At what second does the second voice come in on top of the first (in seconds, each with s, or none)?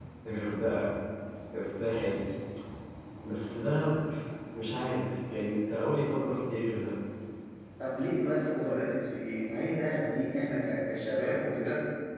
none